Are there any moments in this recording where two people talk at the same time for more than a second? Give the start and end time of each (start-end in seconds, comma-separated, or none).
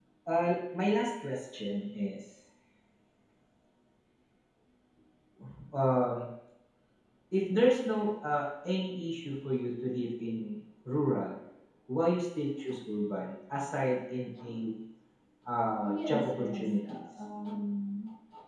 16.1-17.2